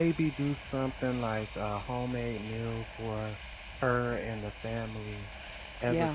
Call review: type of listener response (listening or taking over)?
listening